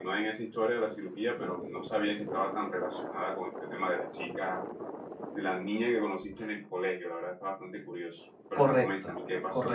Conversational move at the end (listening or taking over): taking over